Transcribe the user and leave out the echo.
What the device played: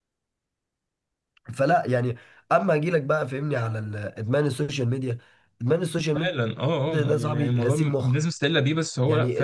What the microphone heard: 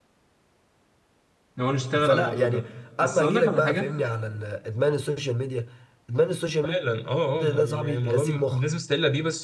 لو نشتغل على الموضوع ده بس اقول لك على حاجه

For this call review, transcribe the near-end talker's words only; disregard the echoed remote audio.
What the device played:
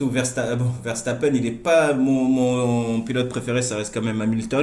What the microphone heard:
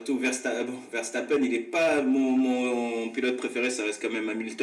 none

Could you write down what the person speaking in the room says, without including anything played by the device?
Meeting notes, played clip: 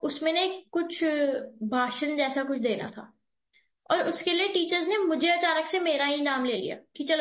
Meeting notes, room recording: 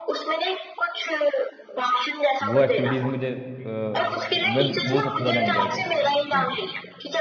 वो एक्टिविटीज़ मुझे अ, मैं वो सबसे ज़्यादा एंजॉय करता था स्कूल में

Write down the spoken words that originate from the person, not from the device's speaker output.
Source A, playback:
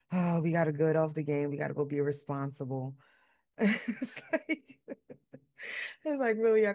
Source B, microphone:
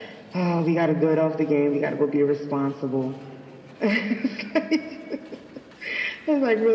none

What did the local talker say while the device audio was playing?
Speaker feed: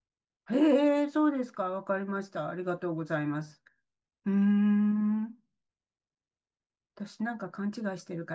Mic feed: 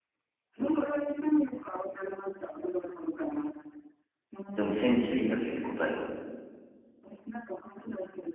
でもセンチュリーらしいです、答えは。

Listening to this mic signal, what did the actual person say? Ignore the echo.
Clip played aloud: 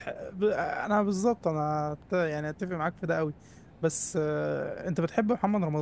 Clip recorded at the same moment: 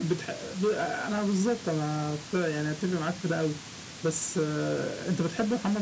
none

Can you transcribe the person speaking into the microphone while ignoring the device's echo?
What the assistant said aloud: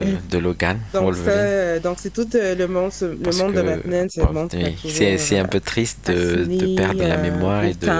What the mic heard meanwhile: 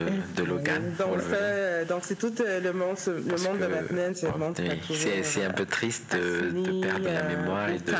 Oui, ouais.

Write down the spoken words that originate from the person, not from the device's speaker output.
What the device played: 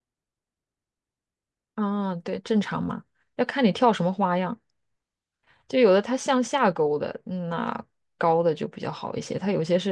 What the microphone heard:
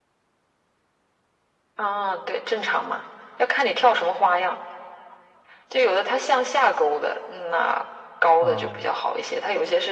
啊，

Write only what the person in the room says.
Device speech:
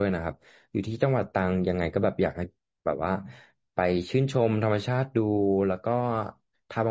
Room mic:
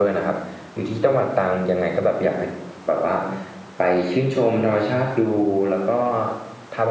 none

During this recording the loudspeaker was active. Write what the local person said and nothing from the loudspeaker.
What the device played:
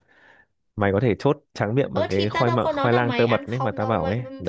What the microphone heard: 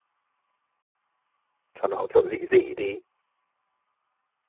cho nó kiểu dị dị đi

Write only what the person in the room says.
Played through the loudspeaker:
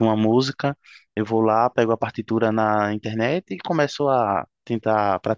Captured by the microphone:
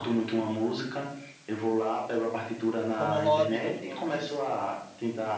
Como hobby, como hobby, isso.

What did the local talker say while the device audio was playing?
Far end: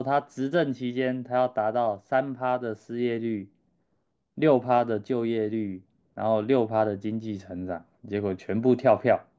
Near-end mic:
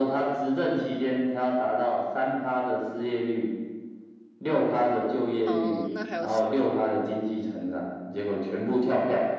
呃，那还有谁啊？

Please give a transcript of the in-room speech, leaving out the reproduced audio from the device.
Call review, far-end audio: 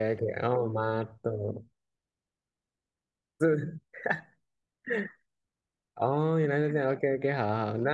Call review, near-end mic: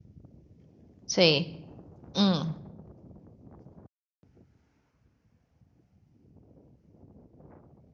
所以嗯，

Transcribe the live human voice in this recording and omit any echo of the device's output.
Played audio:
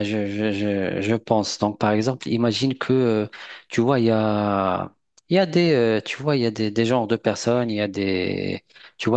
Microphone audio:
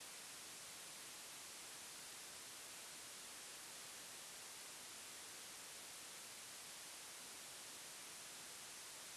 none

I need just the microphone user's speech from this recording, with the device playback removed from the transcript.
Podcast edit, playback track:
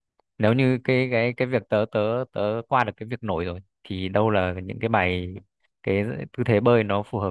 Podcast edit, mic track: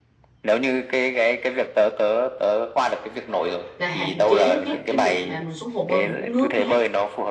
và hạn chế nhất cái việc mà mình xuống hồ bơi mình uống nước nha

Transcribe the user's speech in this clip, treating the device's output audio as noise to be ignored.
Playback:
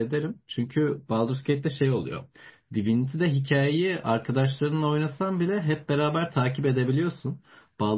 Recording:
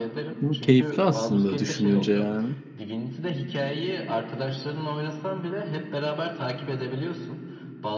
Bu Keyifli aslında düşününce yani.

